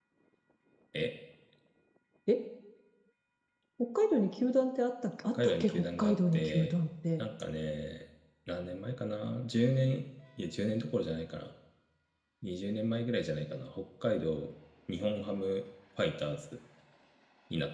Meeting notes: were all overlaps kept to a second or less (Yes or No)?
No